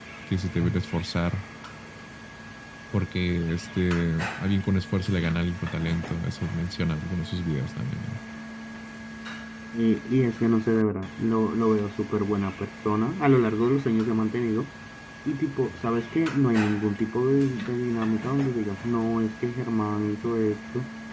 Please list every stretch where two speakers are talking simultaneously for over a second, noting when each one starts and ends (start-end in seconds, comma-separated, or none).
none